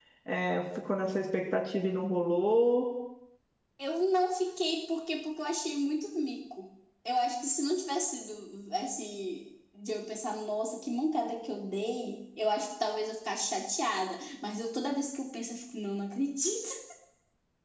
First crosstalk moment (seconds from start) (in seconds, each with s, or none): none